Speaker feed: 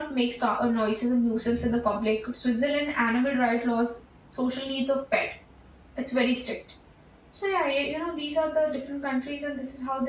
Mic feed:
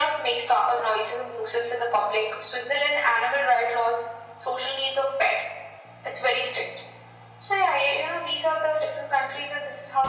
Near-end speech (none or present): none